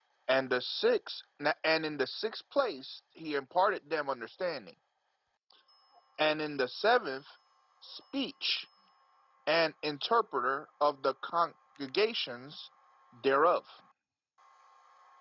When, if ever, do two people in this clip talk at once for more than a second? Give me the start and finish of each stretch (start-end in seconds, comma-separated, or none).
none